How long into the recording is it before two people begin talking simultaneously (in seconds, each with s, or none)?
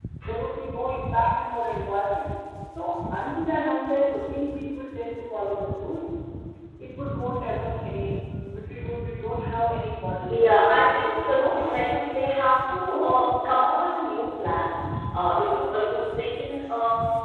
10.3 s